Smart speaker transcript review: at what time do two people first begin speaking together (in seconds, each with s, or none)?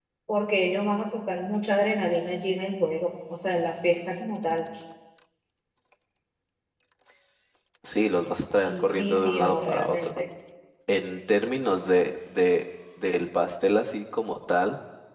8.7 s